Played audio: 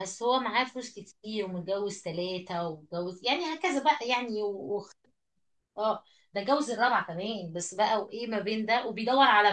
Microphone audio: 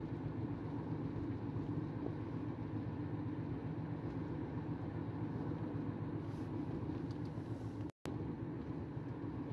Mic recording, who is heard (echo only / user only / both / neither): neither